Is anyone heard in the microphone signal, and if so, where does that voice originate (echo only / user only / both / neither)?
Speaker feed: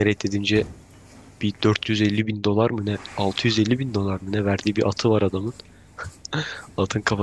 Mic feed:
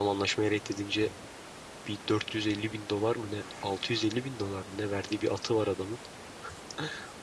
echo only